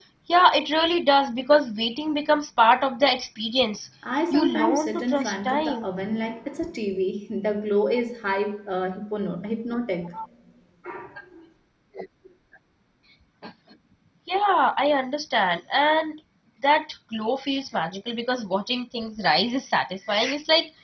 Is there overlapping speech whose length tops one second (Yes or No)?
Yes